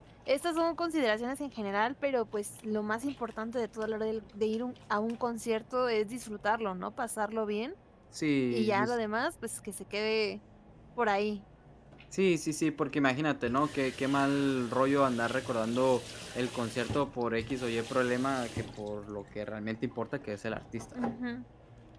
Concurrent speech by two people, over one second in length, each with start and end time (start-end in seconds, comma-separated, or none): none